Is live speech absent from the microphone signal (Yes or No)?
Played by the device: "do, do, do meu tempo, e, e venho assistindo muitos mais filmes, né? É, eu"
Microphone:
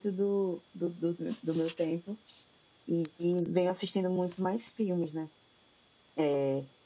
Yes